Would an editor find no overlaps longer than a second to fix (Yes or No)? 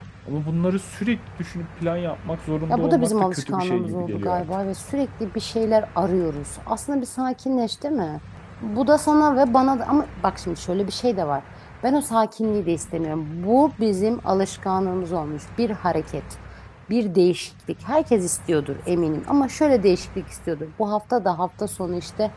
No